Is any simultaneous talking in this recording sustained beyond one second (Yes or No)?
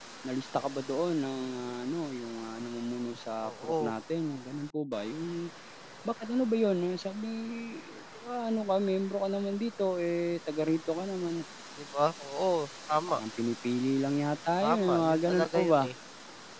Yes